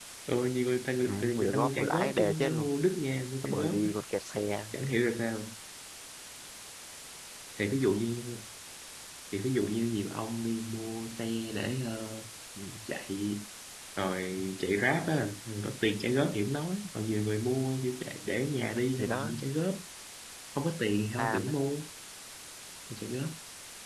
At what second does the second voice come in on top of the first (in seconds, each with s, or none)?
1.1 s